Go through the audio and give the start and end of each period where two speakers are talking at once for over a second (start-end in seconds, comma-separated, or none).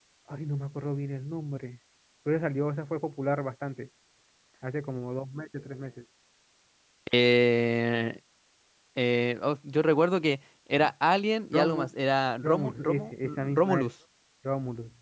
12.4-13.9